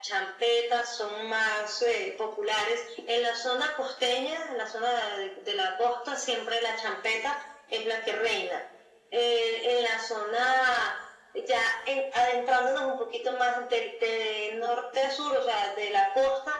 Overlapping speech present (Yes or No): No